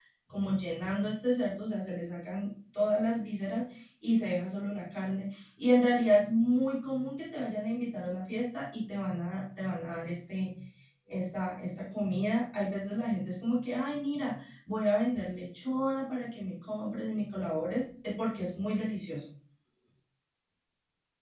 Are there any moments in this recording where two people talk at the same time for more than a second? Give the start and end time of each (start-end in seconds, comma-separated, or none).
none